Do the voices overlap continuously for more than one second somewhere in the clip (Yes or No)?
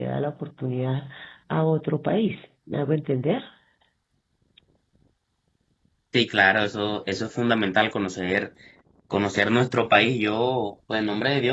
No